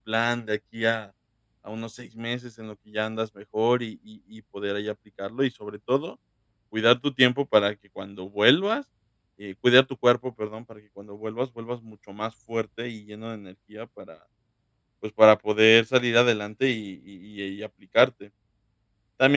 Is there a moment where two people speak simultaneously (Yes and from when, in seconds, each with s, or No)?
No